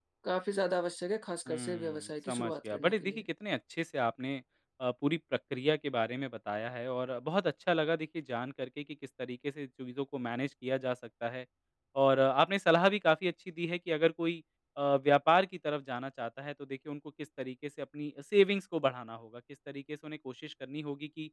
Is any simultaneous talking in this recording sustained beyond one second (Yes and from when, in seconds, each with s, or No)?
Yes, from 1.5 s